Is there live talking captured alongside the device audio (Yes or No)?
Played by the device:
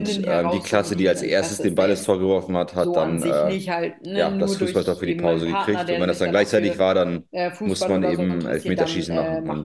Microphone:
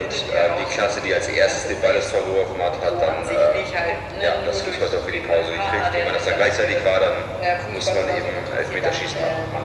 No